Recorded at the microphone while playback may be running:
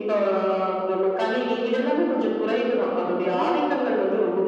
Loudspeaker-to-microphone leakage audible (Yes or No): Yes